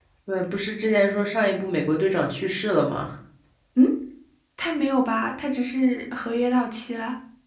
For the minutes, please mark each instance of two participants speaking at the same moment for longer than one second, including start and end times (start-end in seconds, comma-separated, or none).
none